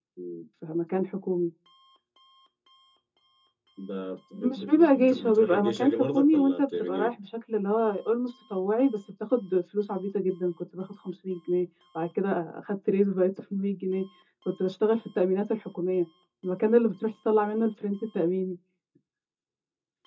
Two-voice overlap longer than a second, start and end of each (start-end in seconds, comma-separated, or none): 4.3-7.2